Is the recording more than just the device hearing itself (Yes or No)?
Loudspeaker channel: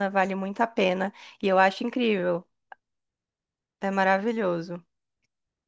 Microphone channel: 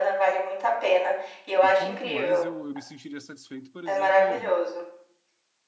Yes